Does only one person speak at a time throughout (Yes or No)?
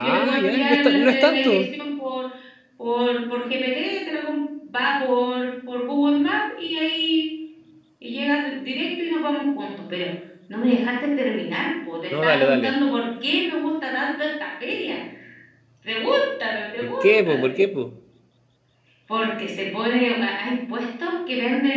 No